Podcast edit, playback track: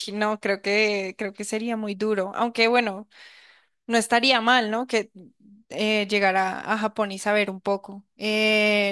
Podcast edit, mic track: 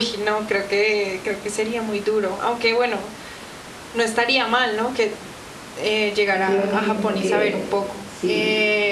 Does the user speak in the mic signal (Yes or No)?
Yes